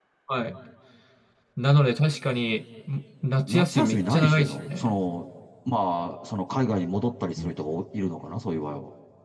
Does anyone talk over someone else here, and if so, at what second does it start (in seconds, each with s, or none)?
3.4 s